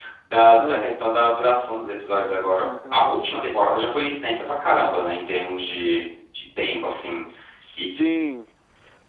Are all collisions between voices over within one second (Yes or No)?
Yes